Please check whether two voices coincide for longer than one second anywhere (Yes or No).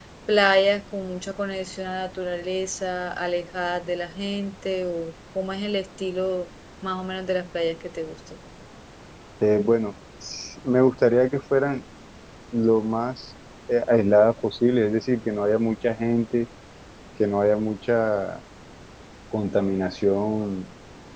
No